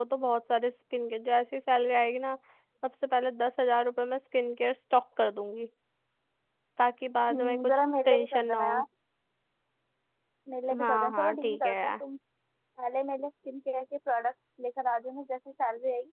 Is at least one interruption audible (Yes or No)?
Yes